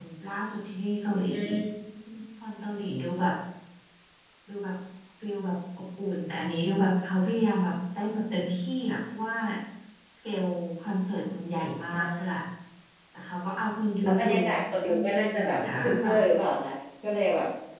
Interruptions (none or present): present